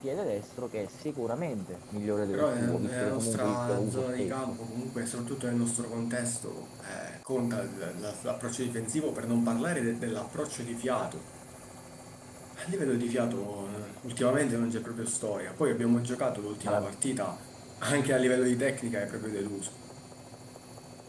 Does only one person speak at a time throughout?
No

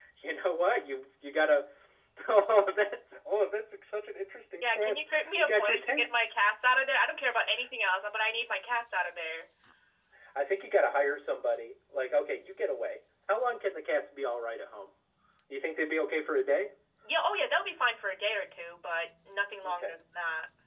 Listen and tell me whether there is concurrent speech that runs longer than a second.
Yes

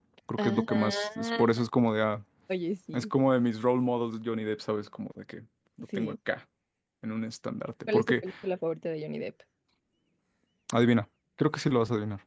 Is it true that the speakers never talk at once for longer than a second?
No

